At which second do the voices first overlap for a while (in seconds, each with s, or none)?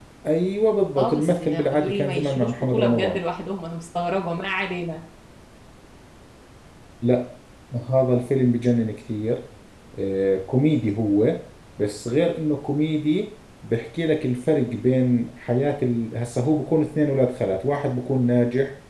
1.0 s